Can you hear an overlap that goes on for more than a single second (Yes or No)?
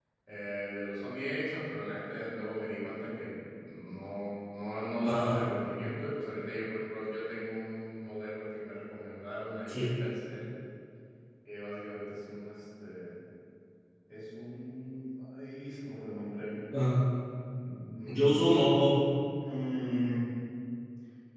No